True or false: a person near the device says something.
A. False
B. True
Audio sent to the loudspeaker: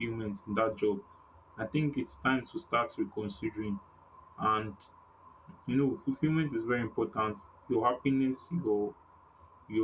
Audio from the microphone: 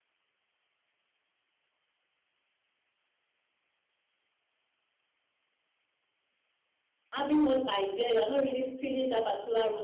B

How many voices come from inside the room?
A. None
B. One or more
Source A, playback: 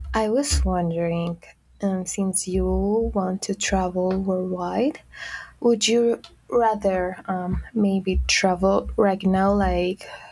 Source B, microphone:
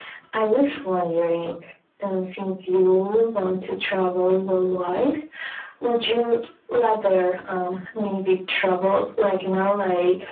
A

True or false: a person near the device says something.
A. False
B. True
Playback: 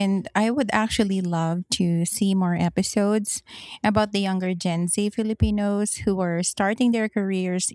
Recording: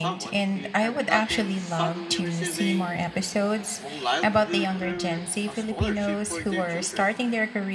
B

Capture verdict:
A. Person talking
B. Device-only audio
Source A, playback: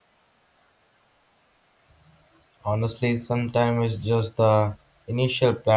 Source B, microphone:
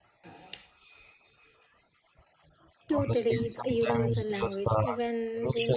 A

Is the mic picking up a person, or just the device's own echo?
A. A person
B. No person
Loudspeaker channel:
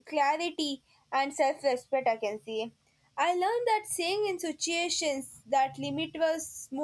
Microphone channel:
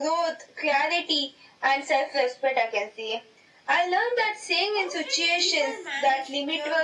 A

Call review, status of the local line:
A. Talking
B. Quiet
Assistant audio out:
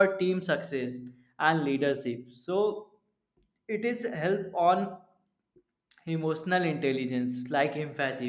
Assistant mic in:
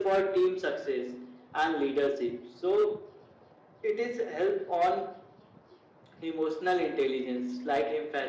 B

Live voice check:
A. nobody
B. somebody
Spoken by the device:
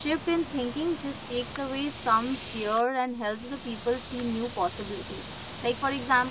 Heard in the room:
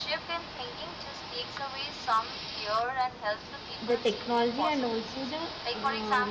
B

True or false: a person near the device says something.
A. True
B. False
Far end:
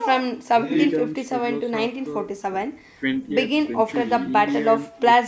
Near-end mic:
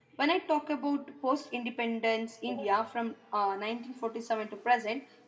A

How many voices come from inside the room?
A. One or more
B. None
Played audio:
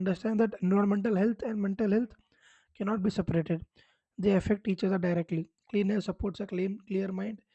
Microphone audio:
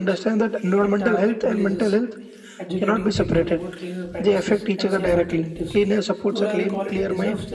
A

